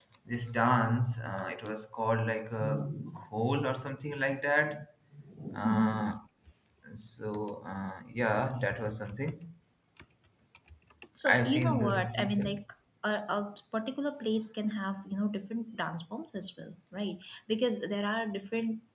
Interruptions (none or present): present